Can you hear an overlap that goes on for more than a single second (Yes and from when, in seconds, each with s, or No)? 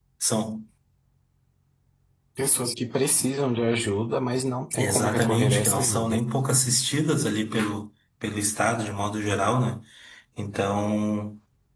Yes, from 4.7 s